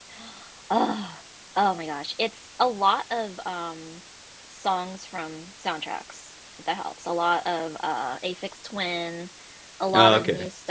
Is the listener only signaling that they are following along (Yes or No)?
Yes